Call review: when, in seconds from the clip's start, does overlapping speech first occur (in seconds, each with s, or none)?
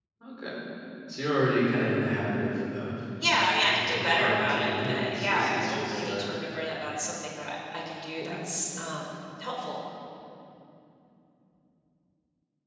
3.6 s